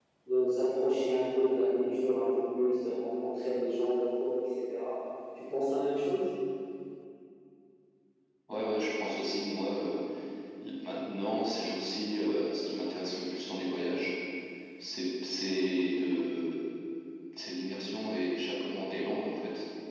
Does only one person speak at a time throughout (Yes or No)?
Yes